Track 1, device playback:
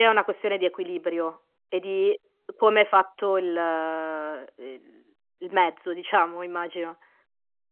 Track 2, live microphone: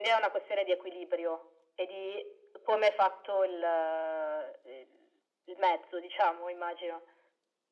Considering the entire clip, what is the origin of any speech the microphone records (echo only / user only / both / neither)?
echo only